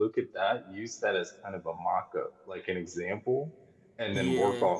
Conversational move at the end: listening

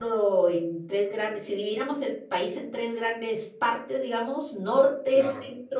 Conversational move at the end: listening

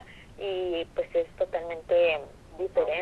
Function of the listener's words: listening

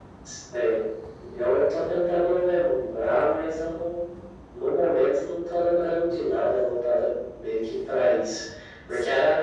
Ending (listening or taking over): listening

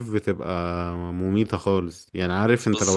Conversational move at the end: listening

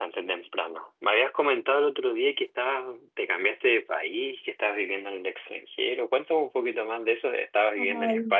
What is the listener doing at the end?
taking over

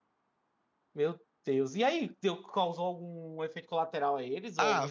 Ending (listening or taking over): taking over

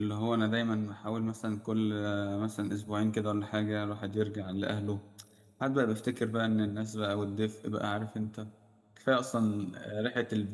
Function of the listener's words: listening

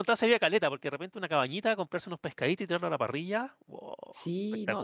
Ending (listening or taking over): taking over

